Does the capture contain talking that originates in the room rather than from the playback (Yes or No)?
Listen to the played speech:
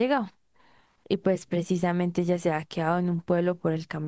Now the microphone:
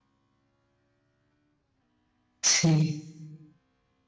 Yes